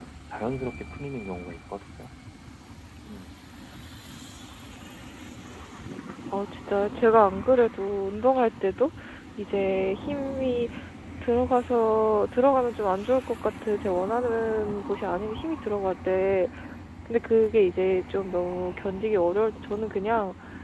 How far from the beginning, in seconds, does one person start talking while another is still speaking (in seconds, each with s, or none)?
none